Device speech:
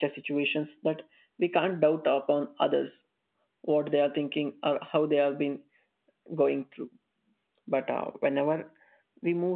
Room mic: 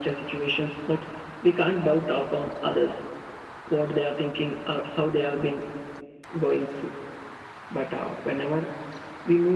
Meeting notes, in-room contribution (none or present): none